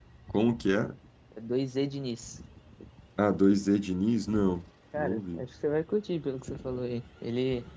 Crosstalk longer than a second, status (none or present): none